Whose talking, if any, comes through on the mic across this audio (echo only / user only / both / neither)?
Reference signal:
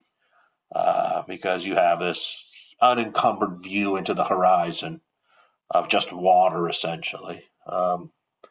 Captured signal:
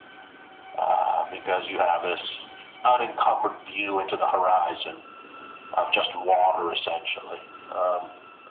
echo only